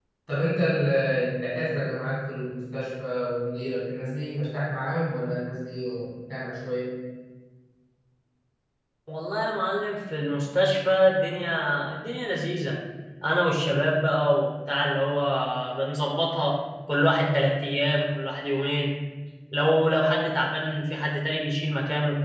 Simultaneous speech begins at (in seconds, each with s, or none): none